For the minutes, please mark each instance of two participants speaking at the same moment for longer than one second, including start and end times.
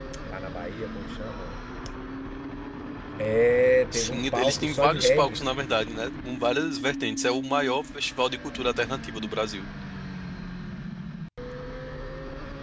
3.9-5.4

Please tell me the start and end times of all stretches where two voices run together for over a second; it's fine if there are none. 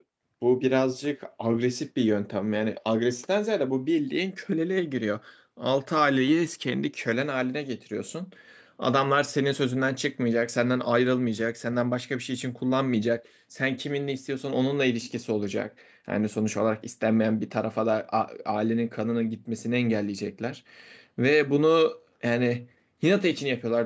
none

